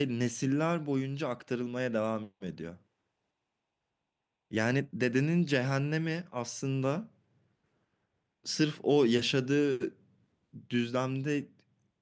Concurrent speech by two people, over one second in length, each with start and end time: none

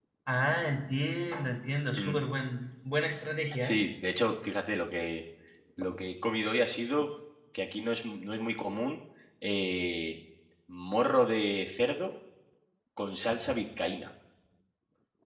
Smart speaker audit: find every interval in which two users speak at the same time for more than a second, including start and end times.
none

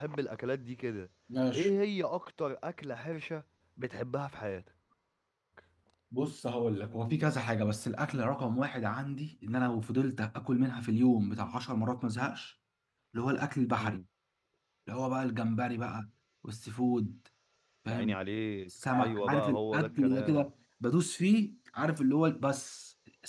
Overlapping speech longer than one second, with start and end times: 18.9-20.5

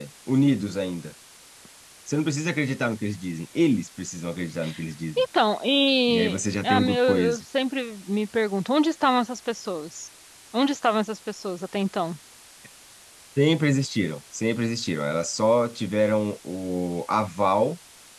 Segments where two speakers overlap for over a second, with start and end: 6.1-7.4

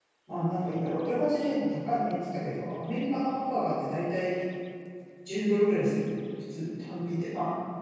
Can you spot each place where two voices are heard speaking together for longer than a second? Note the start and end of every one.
none

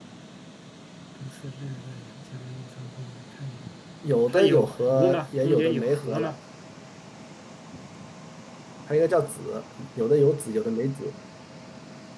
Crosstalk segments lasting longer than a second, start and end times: 4.3-6.3

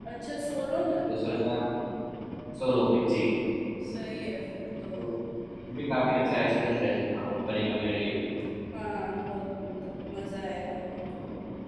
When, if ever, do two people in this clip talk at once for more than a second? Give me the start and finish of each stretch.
none

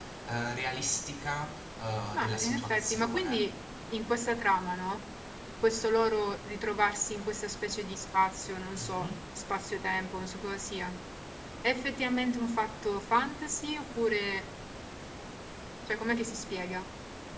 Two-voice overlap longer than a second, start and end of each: 2.1-3.5

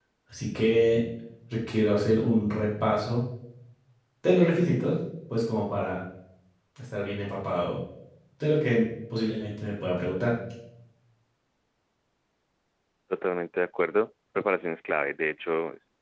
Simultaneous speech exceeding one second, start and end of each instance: none

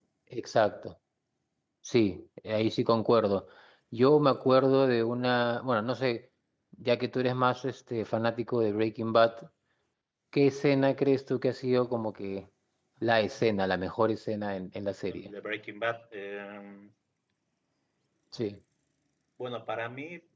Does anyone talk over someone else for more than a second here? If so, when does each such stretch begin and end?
none

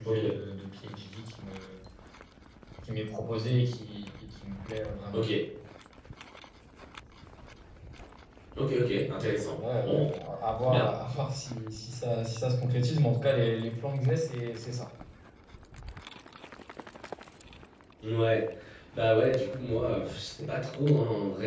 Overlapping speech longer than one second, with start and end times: none

